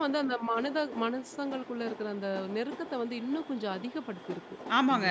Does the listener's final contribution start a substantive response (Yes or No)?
Yes